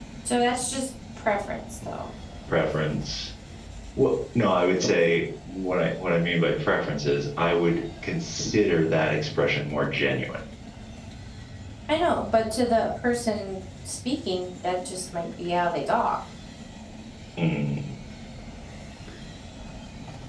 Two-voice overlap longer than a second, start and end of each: none

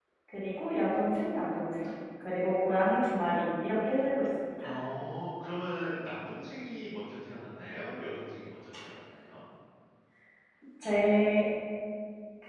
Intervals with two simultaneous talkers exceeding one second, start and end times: none

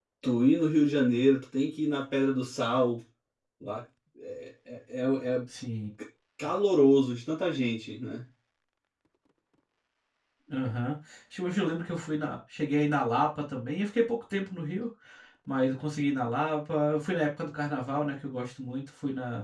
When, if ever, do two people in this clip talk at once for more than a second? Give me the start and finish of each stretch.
none

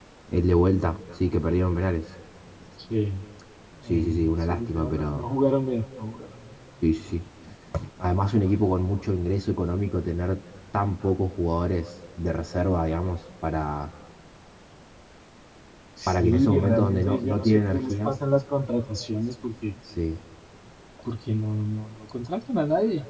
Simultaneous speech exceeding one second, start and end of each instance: 3.9-5.3, 16.1-18.1

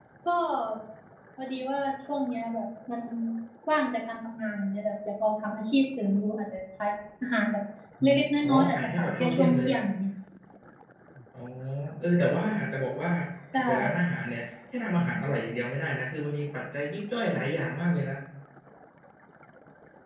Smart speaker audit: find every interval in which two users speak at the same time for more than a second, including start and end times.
8.0-9.7

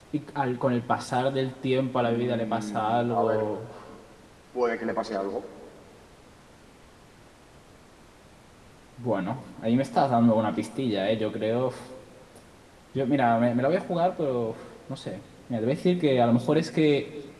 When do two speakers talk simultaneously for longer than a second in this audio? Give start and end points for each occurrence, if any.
2.0-3.5

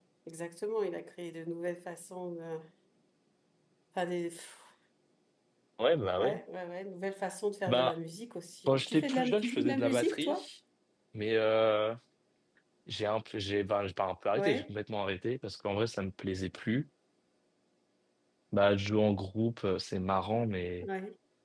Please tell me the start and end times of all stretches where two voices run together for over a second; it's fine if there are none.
8.7-10.5

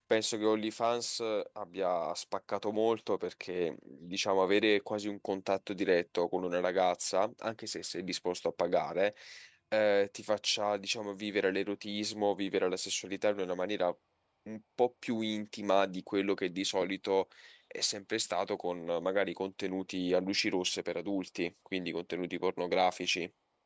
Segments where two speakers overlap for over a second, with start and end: none

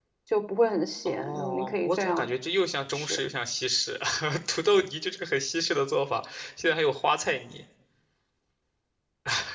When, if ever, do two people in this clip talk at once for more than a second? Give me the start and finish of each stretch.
1.1-2.3

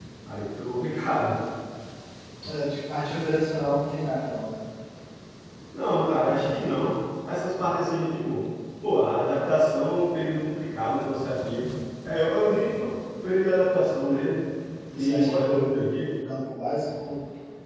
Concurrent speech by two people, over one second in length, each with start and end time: 14.9-16.1

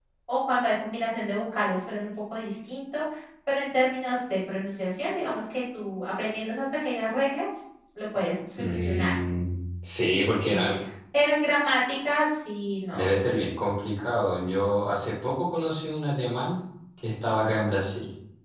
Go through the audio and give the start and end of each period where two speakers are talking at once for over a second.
none

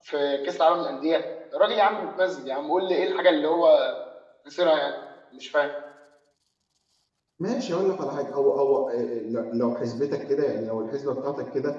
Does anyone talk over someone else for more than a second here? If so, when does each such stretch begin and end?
none

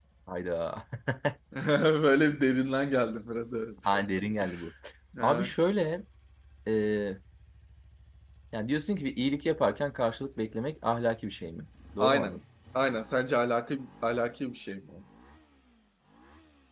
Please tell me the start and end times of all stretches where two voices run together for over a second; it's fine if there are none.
none

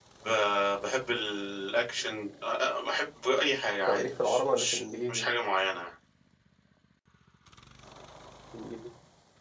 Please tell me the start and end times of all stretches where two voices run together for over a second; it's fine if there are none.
3.9-5.3

